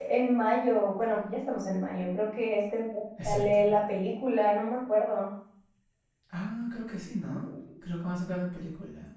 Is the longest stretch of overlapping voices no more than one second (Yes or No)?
Yes